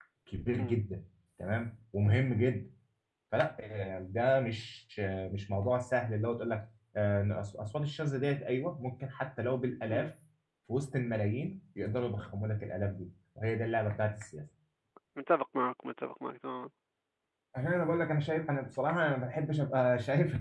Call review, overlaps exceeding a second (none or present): none